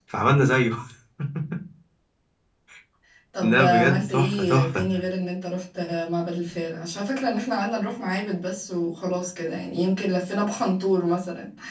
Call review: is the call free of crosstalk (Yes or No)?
No